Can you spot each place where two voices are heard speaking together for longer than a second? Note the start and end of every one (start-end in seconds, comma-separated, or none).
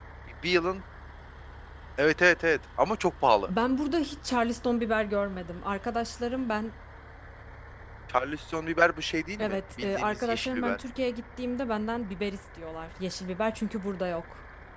9.4-10.8